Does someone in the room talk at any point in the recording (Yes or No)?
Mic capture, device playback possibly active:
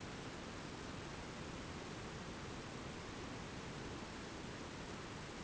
No